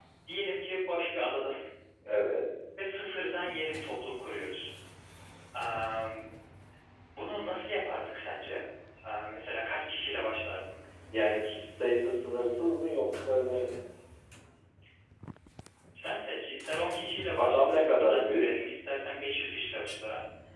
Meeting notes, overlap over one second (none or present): present